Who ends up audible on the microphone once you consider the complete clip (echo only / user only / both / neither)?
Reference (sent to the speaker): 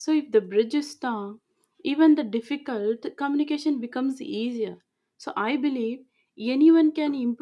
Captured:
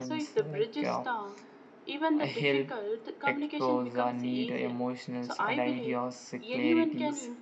both